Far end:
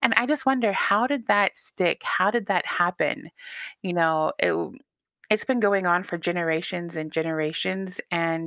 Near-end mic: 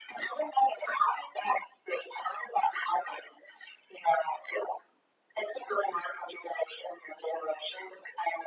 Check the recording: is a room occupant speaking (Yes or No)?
No